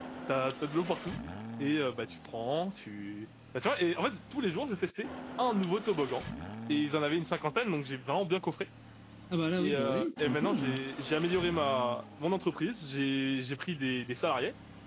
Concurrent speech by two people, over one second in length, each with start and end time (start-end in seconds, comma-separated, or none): 9.6-10.8